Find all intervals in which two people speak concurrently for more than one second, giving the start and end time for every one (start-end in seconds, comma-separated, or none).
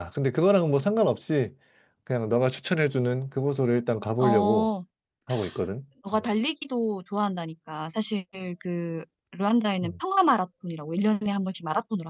none